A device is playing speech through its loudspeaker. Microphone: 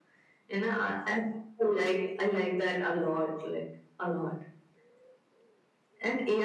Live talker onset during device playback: none

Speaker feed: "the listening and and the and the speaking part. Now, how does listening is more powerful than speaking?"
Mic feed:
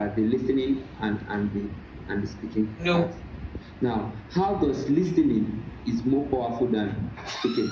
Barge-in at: 2.7 s

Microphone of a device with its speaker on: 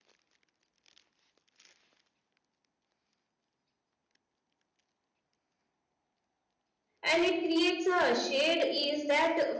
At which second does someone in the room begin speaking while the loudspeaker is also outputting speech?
7.0 s

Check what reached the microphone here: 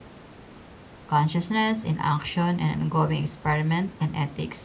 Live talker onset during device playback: 1.1 s

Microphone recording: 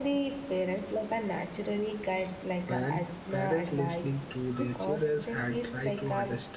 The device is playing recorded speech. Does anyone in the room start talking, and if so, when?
2.6 s

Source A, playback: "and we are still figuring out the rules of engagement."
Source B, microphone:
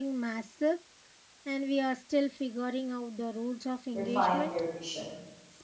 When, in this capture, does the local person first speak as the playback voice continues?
3.9 s

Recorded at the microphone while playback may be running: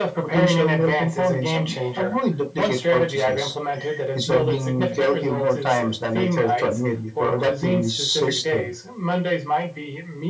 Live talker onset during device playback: none

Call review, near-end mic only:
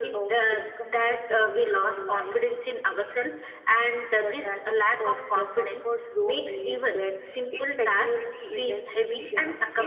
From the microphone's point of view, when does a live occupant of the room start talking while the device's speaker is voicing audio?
none

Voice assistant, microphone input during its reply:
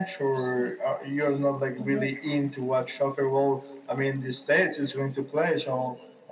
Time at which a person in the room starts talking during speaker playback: none

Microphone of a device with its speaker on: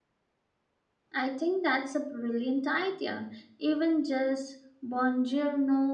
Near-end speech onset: 1.1 s

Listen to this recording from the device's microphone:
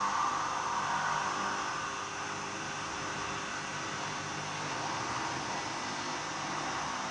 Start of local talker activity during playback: none

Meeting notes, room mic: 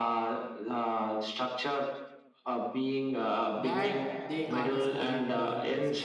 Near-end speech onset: 3.5 s

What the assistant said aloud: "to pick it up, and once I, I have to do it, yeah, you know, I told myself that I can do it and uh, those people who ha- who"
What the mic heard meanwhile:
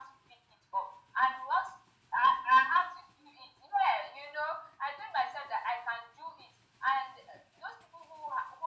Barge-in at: none

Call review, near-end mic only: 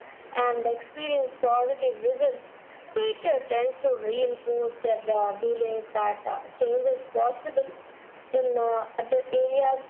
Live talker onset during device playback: none

